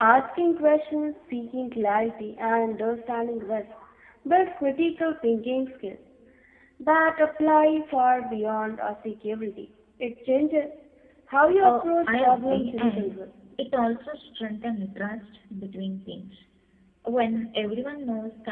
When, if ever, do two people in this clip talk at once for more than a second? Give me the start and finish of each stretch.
11.6-13.1

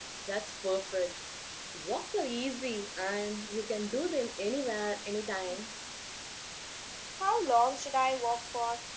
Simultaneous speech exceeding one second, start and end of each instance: none

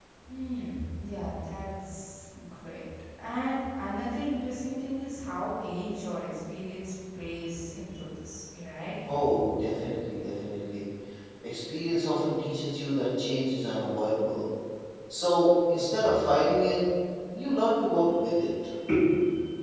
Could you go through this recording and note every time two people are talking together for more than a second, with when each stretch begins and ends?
none

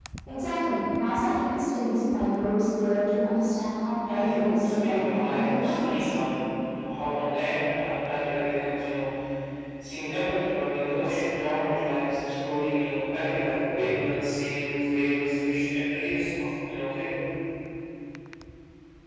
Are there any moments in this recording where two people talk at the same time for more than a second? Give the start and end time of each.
4.0-6.1

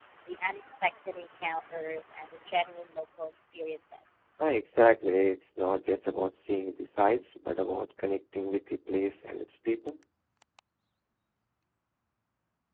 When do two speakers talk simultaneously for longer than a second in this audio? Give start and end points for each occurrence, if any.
none

